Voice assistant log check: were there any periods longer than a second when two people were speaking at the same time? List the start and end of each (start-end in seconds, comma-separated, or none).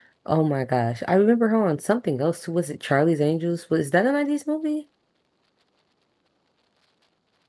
none